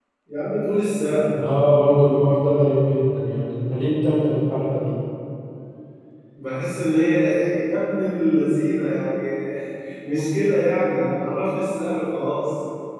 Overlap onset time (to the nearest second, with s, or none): none